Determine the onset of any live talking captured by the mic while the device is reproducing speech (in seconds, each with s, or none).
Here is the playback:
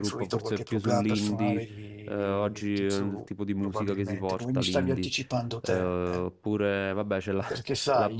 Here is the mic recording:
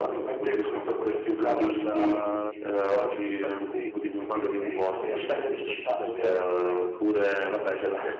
1.4 s